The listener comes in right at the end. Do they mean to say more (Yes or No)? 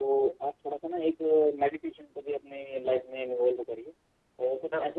No